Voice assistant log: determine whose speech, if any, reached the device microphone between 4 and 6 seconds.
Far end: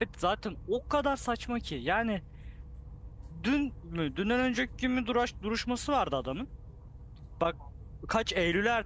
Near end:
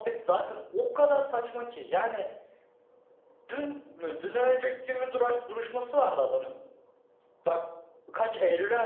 echo only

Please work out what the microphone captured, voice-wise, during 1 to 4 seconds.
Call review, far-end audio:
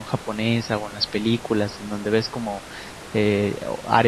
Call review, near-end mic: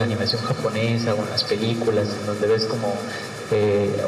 echo only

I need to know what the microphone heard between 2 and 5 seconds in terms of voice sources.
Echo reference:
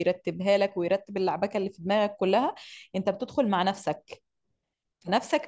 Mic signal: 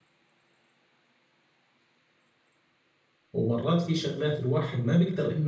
user only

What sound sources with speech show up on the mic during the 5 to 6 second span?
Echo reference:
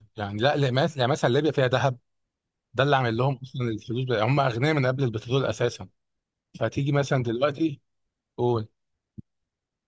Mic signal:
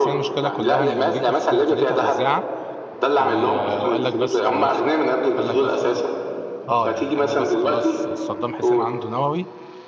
both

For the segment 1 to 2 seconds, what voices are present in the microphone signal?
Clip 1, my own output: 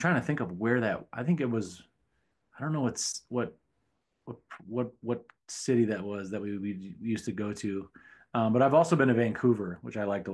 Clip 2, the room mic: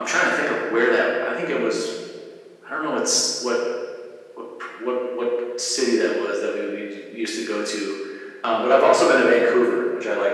echo only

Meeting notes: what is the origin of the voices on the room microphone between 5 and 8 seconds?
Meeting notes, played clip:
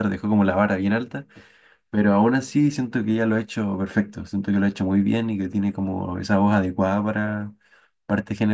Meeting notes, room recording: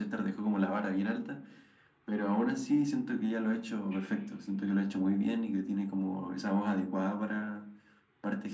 echo only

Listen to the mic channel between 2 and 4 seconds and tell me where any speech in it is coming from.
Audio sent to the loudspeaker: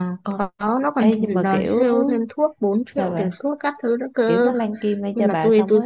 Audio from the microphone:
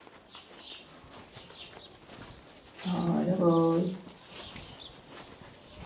user only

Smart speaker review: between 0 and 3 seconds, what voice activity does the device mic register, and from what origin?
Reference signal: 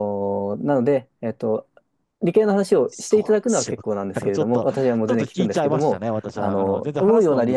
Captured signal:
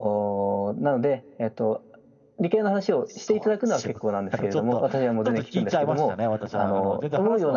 echo only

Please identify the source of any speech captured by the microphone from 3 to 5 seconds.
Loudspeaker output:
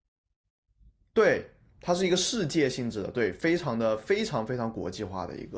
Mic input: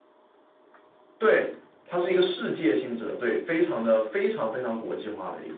echo only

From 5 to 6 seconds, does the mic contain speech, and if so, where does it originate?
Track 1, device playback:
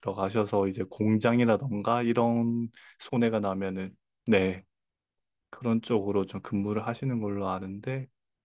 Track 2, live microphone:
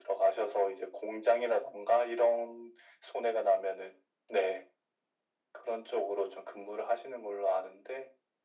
echo only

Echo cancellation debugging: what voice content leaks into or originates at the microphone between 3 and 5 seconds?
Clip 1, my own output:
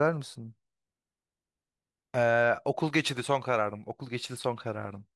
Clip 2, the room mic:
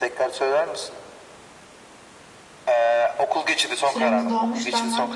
both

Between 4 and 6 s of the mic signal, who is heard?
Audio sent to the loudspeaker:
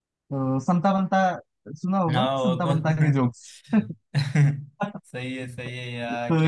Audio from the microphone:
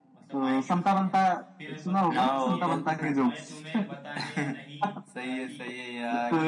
both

